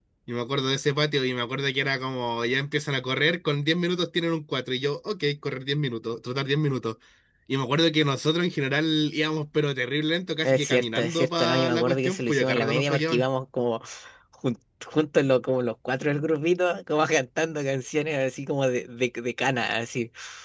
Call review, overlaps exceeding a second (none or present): present